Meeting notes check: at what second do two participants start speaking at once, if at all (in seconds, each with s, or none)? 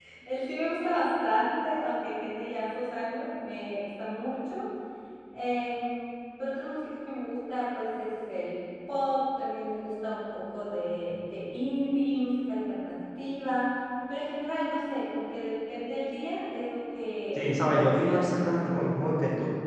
17.4 s